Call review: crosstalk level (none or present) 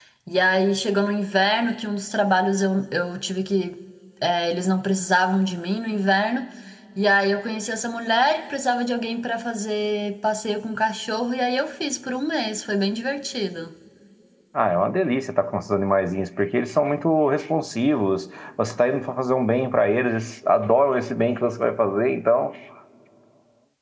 none